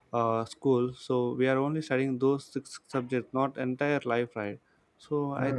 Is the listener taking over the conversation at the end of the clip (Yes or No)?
No